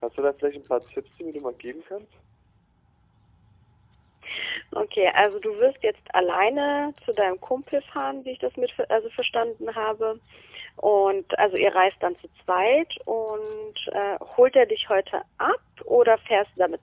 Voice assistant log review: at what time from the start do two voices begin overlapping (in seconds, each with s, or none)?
none